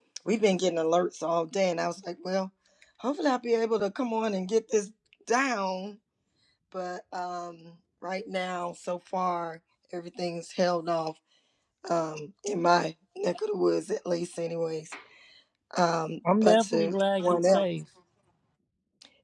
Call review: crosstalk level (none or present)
present